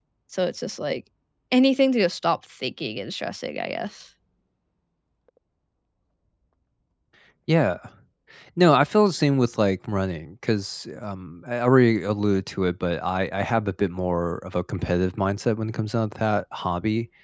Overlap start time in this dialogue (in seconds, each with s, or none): none